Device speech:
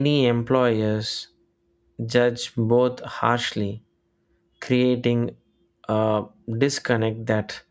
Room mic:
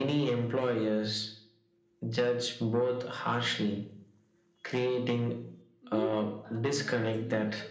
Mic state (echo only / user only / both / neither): both